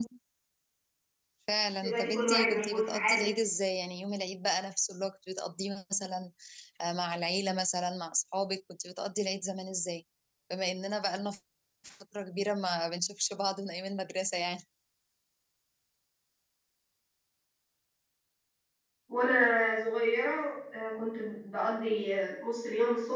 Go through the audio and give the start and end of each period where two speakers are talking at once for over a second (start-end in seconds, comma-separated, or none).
1.8-3.3